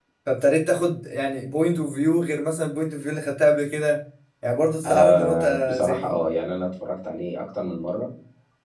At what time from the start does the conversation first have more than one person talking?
4.7 s

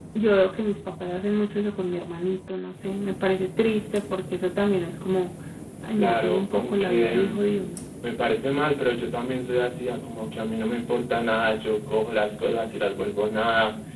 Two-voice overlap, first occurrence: 6.0 s

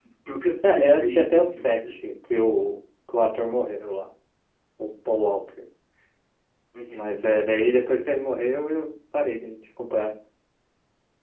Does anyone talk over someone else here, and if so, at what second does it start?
0.6 s

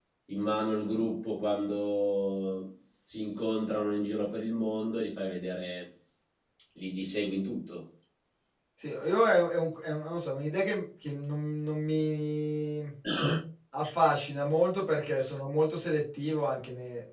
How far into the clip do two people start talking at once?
none

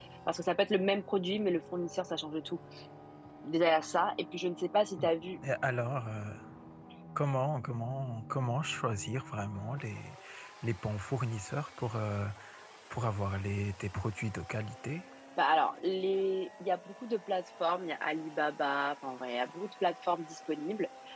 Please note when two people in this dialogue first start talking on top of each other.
none

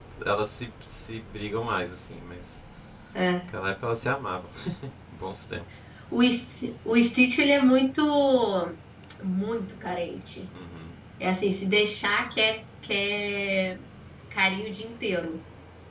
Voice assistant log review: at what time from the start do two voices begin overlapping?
none

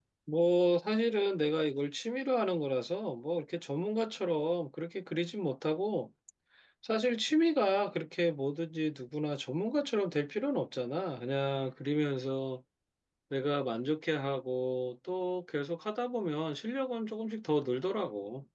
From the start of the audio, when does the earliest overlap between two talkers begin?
none

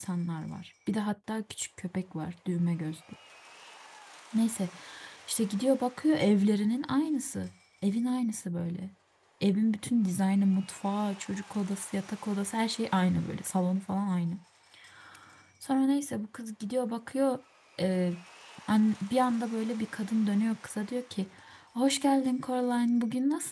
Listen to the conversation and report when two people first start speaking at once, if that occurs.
none

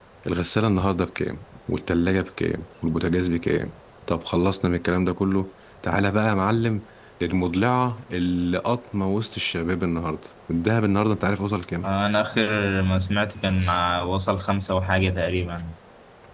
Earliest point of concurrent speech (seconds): none

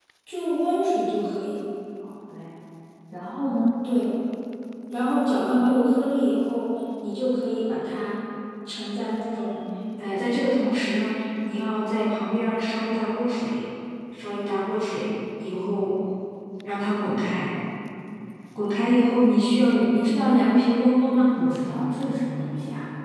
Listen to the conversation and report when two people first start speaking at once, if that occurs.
none

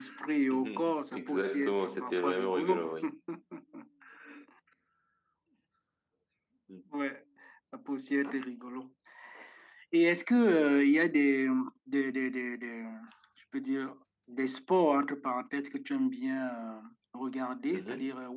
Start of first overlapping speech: 0.5 s

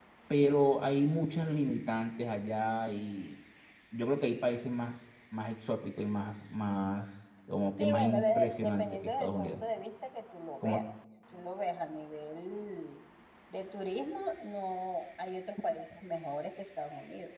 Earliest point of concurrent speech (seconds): 7.8 s

